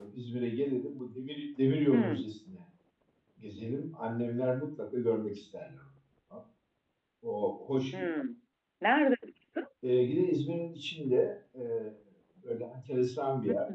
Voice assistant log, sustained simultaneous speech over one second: none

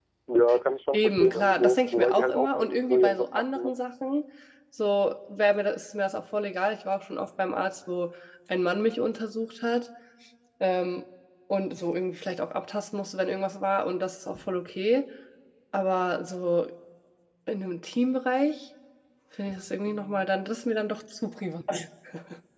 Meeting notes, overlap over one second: present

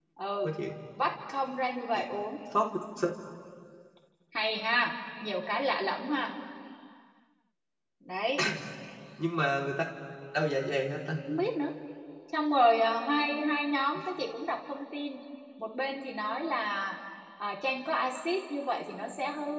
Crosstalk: none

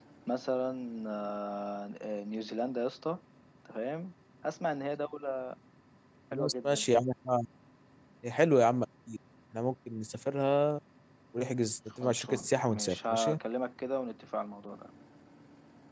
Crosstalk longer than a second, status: present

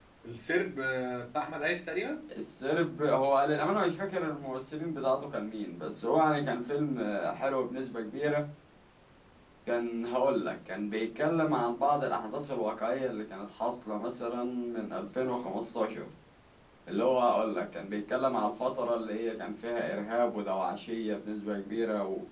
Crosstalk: none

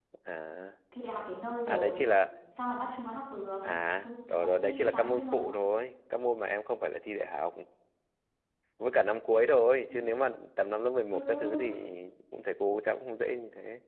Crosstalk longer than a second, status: present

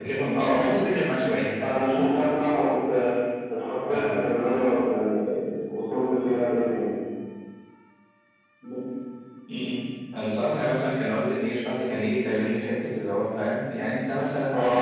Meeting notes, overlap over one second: none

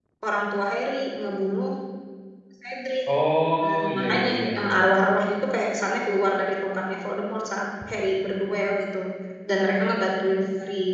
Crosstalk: present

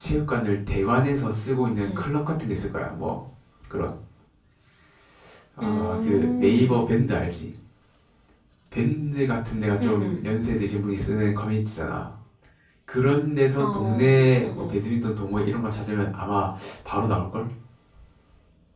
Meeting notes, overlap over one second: present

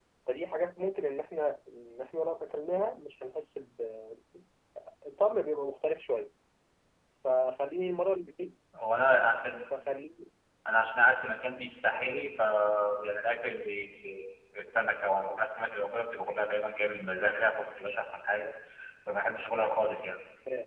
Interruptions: none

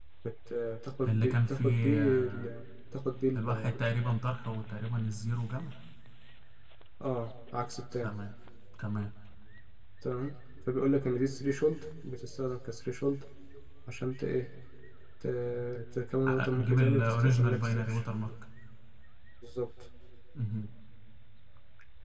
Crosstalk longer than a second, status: present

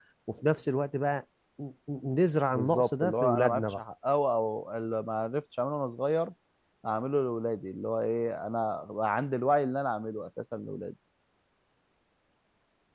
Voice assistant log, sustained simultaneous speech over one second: present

